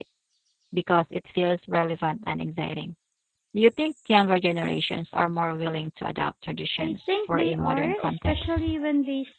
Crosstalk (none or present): present